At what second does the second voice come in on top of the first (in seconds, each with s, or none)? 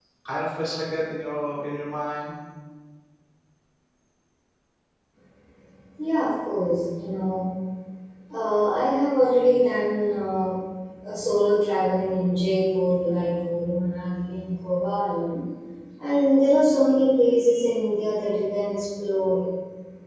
none